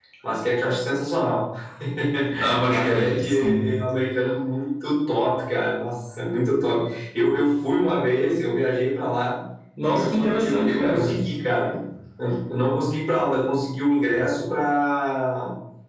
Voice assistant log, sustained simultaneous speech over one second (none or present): present